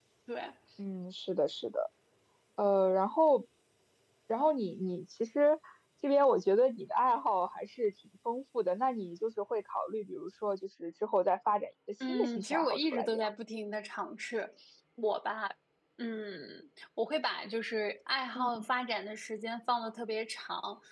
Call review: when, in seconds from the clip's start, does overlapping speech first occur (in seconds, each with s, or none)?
12.1 s